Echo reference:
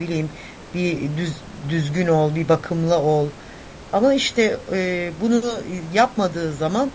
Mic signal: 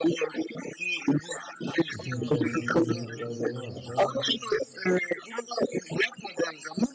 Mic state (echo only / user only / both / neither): both